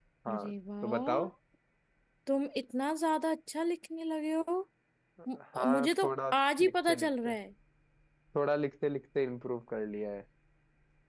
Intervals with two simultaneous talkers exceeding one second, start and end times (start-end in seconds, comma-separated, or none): 5.5-7.3